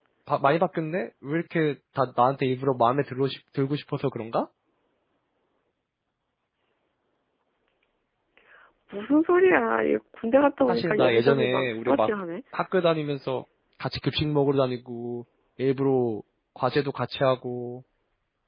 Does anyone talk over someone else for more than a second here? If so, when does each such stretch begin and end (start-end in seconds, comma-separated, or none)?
10.7-12.1